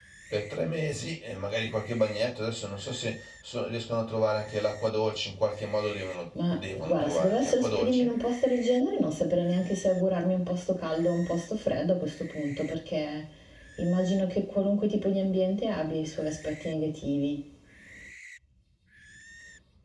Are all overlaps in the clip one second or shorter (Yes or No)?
No